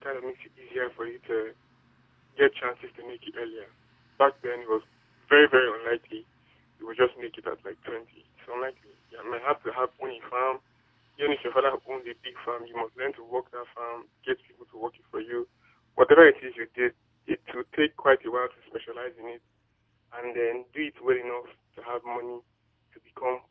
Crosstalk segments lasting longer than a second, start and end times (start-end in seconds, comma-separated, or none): none